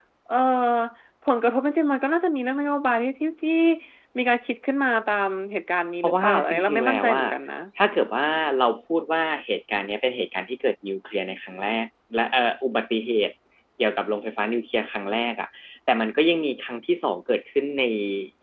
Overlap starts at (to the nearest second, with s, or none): 6 s